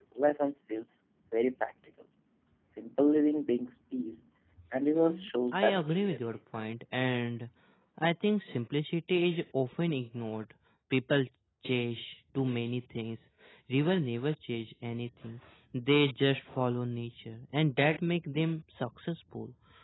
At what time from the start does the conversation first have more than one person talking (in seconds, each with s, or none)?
4.9 s